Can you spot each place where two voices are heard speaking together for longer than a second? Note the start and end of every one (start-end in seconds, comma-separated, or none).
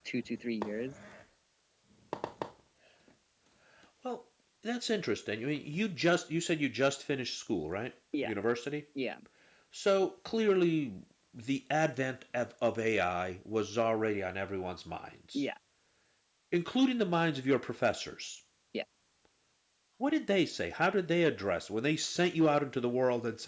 none